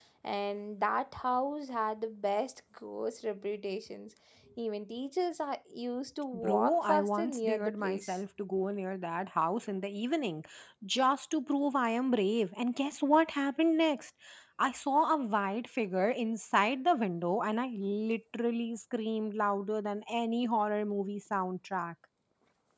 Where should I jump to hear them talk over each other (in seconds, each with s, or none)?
6.3 s